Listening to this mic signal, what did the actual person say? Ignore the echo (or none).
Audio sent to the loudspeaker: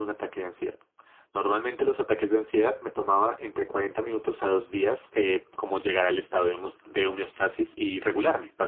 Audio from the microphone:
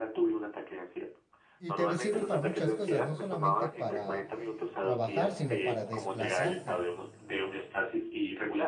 Y te sirve para muchas cosas, no solamente para trabajar, sino para desplazarte,